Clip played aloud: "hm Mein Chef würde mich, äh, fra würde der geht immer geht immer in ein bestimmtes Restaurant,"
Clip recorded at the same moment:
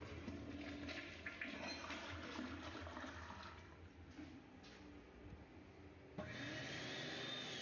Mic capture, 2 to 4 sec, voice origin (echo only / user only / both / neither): neither